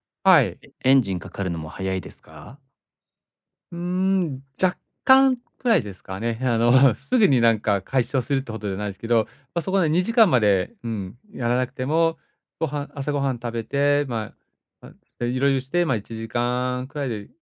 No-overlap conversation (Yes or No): Yes